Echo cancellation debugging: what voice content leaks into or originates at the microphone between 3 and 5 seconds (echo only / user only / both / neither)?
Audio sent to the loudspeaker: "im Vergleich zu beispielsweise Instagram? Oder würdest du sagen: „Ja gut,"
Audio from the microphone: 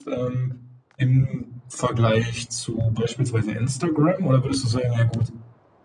echo only